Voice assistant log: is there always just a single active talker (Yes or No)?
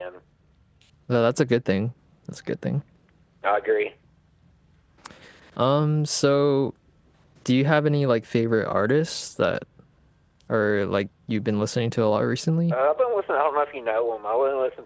Yes